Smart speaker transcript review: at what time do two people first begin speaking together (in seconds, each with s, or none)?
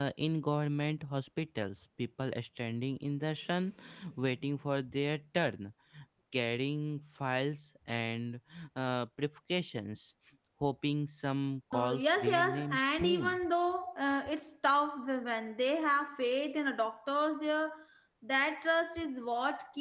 11.7 s